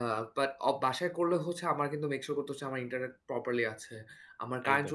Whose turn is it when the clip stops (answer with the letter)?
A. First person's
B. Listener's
A